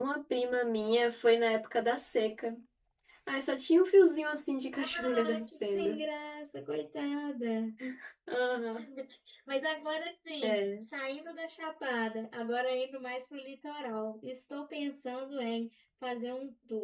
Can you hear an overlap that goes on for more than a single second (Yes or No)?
Yes